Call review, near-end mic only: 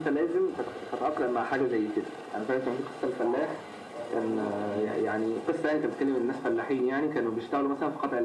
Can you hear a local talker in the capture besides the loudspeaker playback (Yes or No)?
Yes